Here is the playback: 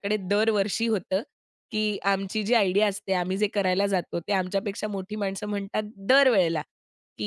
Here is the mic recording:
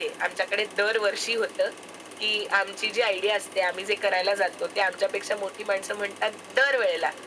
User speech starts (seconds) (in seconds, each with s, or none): none